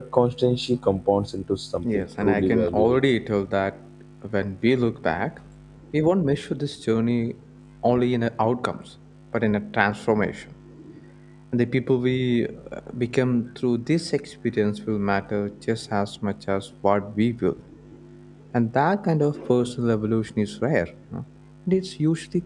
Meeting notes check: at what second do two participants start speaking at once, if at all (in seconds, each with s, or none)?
1.8 s